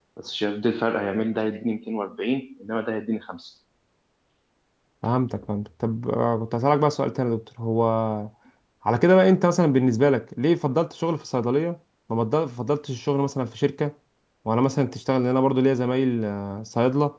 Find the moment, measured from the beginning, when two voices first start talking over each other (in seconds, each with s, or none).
none